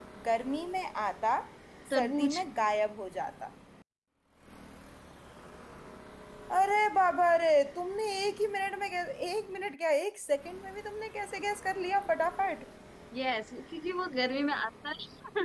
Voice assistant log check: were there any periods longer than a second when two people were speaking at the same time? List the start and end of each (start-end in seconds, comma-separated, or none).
none